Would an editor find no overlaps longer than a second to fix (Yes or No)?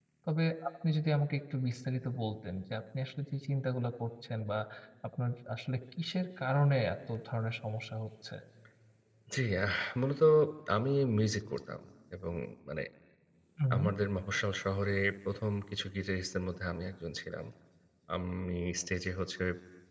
Yes